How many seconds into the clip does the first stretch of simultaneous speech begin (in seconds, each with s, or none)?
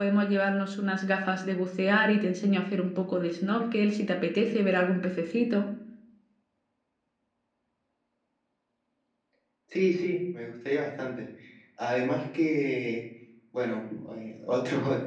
none